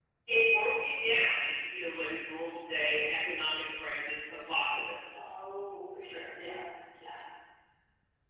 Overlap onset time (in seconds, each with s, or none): none